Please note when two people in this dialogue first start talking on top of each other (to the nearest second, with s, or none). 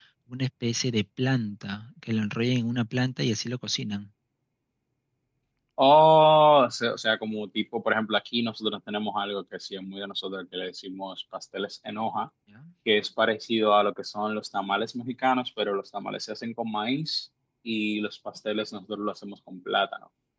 none